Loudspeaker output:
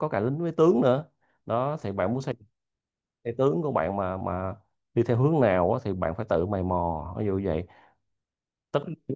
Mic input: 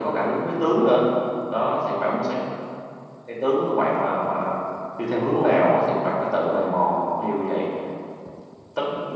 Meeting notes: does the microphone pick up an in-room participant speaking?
No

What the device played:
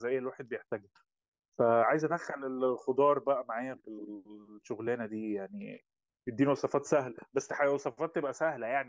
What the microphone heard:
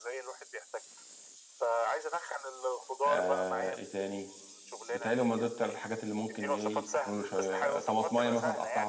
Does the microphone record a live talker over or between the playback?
Yes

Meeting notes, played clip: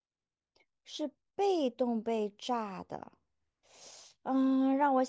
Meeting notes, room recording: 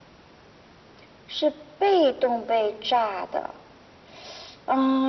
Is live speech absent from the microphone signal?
Yes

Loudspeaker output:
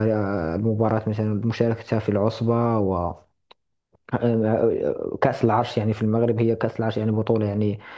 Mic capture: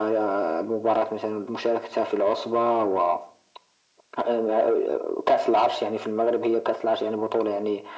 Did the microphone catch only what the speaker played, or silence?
Yes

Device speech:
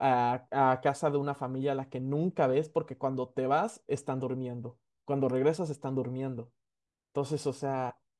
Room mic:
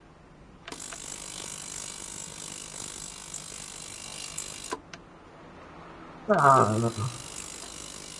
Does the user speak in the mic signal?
Yes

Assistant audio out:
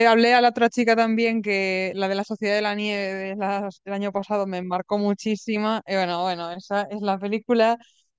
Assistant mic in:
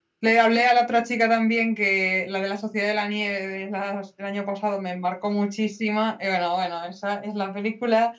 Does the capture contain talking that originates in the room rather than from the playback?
No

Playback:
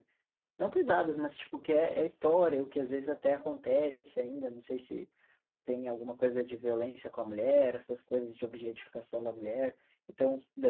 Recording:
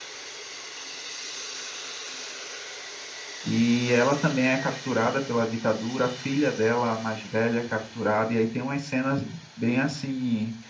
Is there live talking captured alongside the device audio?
Yes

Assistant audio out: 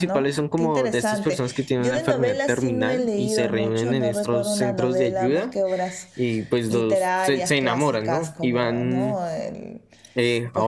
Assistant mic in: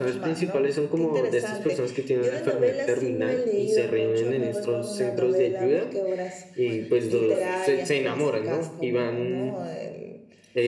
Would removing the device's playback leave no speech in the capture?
No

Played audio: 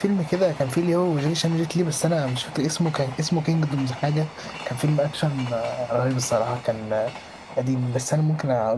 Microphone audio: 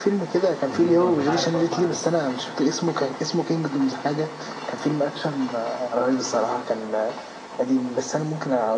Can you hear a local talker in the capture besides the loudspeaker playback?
Yes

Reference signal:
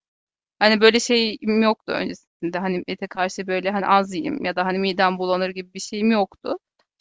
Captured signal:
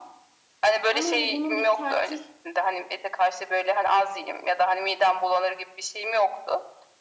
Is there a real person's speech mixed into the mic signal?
Yes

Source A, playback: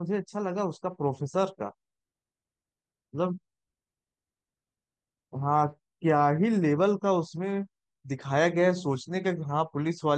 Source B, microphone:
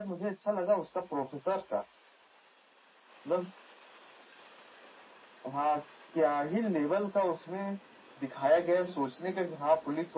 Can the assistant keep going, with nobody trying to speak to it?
Yes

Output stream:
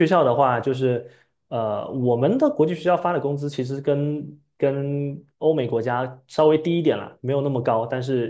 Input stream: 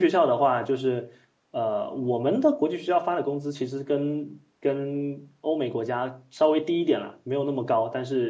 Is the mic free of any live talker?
Yes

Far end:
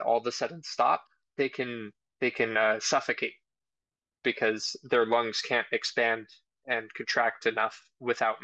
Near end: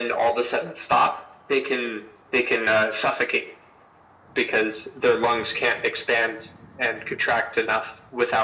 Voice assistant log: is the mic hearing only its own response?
Yes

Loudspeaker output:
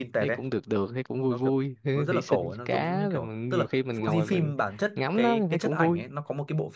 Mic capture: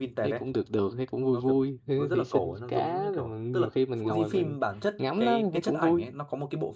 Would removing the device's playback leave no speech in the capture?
Yes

